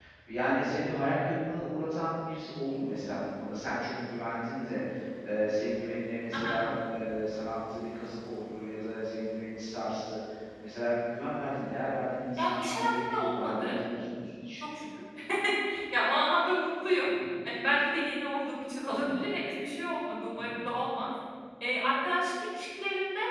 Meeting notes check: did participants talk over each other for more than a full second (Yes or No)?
Yes